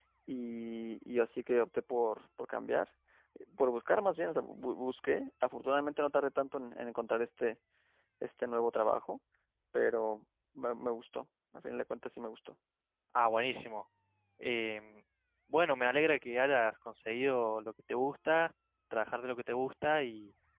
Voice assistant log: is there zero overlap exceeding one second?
Yes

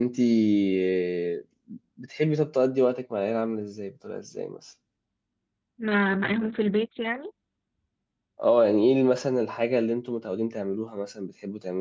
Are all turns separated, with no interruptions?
Yes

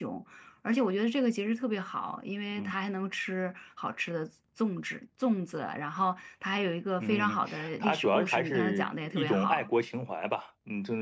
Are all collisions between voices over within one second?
No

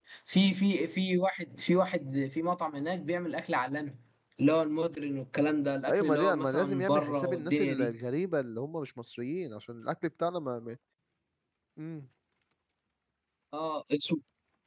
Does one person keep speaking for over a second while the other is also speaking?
Yes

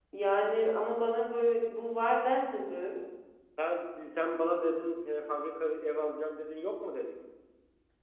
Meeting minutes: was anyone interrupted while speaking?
No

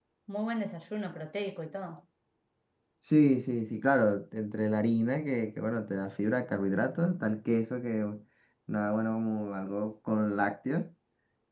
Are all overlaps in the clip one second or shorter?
Yes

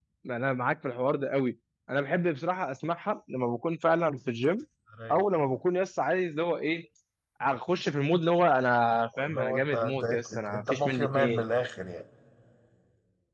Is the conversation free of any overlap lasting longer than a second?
No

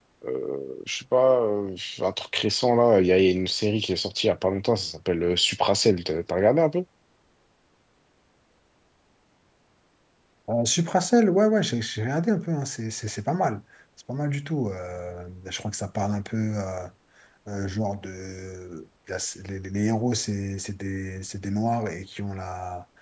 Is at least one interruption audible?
No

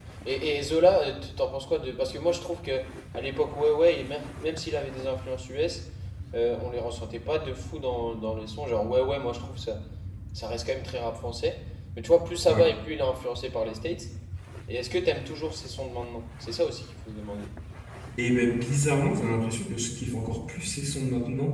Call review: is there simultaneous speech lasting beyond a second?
No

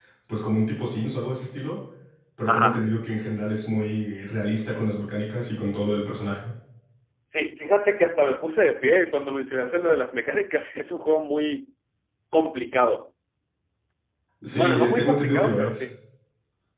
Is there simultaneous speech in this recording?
Yes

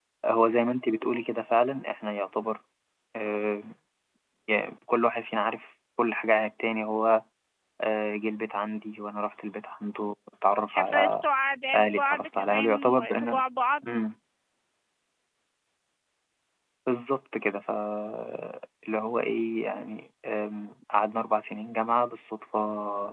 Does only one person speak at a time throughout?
No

